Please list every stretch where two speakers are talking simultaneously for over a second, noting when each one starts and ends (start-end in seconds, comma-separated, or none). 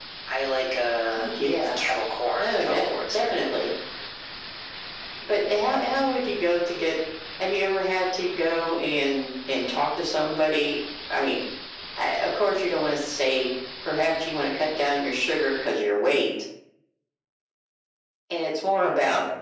2.4-3.6